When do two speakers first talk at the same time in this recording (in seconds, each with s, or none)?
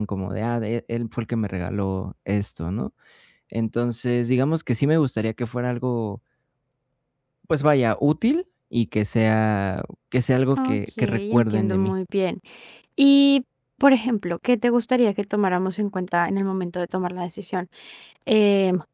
10.6 s